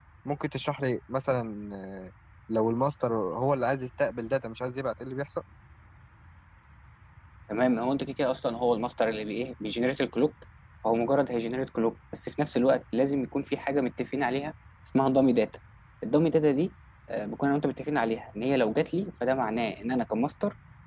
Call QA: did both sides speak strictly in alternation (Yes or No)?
Yes